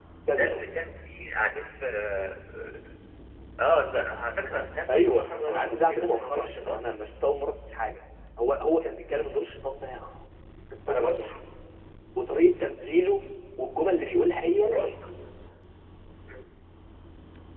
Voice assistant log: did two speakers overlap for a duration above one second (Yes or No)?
Yes